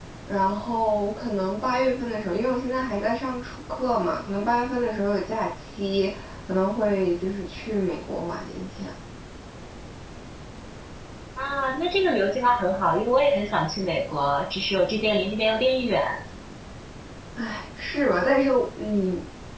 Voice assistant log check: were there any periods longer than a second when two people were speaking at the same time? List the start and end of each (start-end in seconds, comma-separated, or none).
none